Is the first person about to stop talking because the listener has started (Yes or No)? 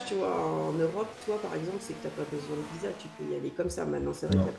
No